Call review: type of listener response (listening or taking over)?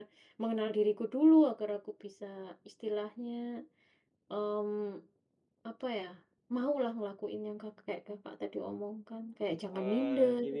taking over